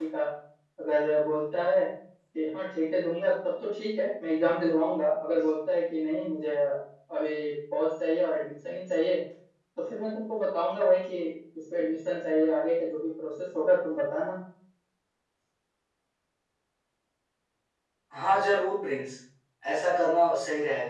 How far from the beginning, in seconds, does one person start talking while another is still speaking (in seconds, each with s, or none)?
none